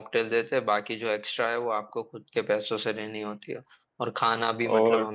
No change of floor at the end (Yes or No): Yes